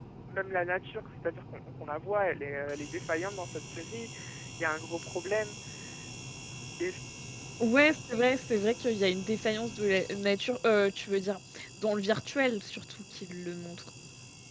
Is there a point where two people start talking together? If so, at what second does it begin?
none

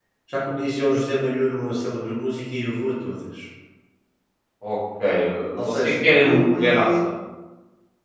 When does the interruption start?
6 s

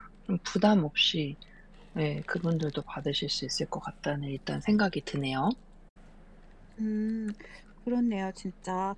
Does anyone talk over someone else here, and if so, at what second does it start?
none

